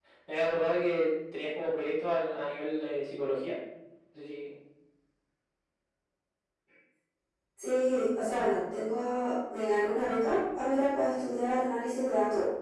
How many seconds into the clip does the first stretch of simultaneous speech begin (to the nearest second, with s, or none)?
none